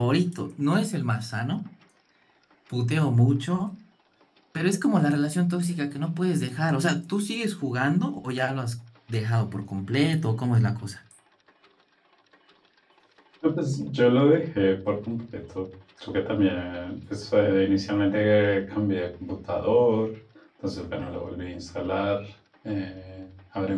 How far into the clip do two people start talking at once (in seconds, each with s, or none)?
none